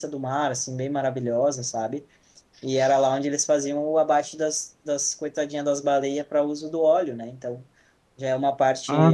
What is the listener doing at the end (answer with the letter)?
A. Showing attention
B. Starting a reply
B